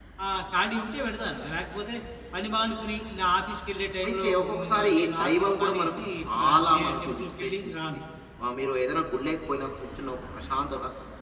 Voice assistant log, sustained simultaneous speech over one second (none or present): present